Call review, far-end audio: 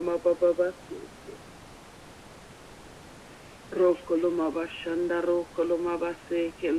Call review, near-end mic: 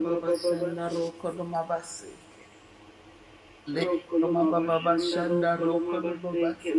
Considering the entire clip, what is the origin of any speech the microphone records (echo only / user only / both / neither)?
both